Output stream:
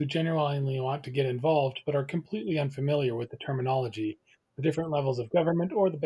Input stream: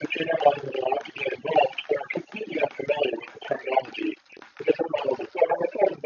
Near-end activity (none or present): none